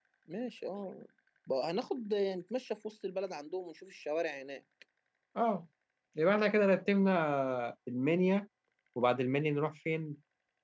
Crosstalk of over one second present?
No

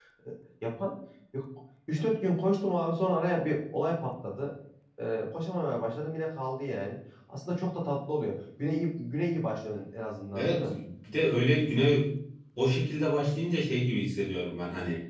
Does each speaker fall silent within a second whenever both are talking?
Yes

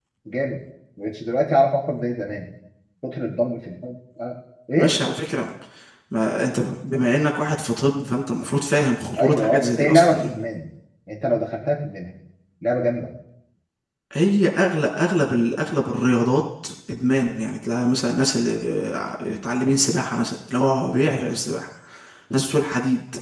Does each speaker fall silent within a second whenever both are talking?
No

